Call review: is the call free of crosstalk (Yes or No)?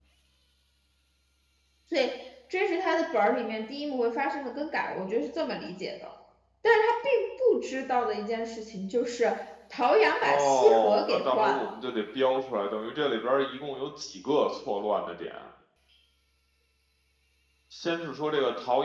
No